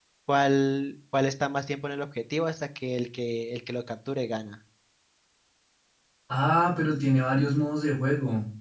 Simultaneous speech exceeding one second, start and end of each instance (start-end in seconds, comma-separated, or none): none